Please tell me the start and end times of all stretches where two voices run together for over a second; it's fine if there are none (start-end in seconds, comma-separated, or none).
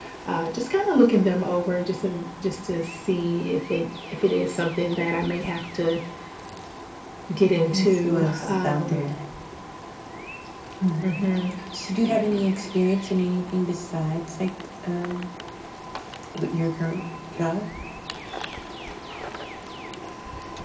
7.7-9.0